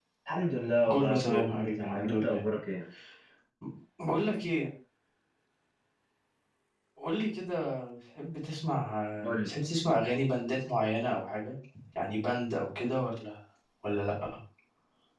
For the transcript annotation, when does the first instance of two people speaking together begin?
0.9 s

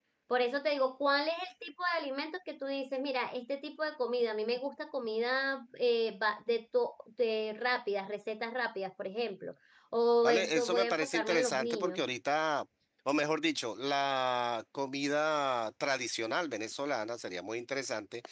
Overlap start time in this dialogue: 10.2 s

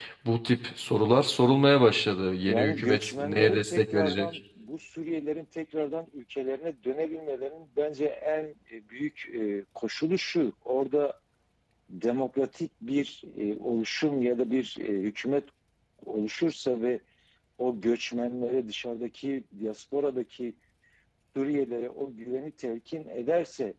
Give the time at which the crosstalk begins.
2.5 s

